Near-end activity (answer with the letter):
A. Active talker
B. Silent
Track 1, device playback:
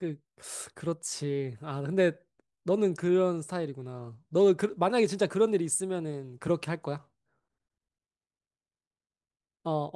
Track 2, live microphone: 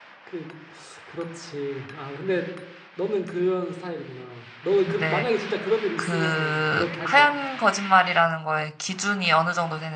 A